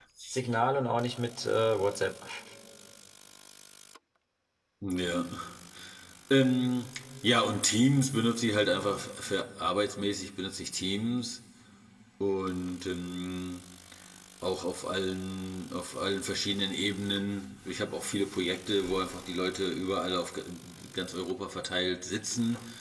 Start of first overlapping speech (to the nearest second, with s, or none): none